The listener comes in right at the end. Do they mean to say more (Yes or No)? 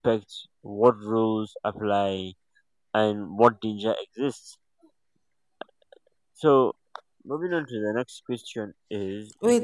Yes